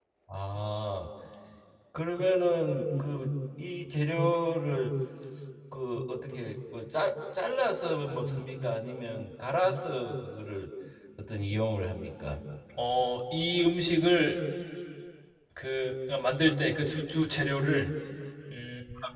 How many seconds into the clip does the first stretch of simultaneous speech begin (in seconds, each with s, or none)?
none